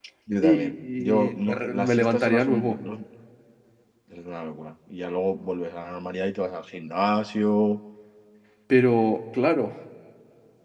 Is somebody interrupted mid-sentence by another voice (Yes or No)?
Yes